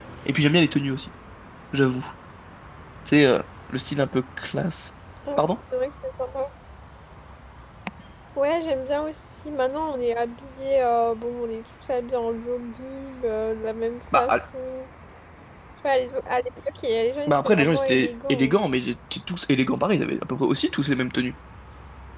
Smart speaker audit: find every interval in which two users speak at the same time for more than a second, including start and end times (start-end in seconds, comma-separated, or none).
17.3-18.6